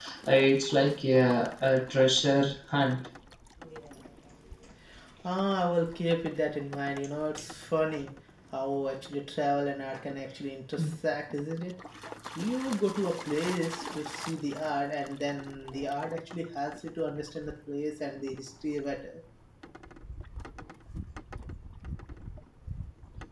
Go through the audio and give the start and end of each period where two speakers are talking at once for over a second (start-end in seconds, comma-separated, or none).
none